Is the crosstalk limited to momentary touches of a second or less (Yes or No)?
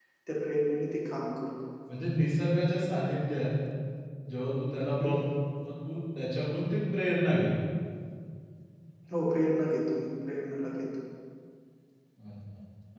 Yes